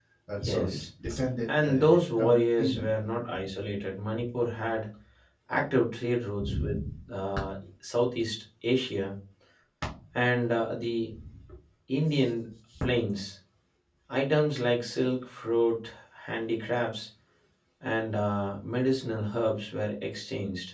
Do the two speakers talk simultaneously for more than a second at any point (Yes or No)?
Yes